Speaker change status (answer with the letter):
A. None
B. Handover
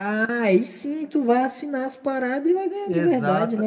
B